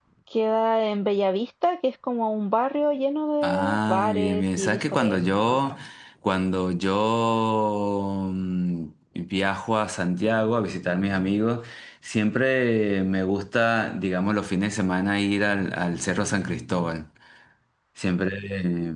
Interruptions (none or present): present